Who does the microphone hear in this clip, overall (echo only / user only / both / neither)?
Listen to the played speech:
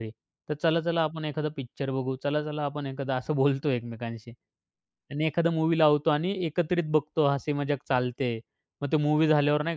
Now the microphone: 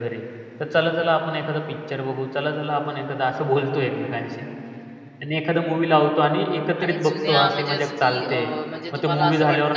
both